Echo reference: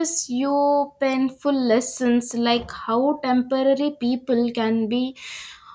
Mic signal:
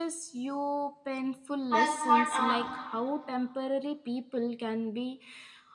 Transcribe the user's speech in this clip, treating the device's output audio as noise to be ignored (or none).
I have caught uh,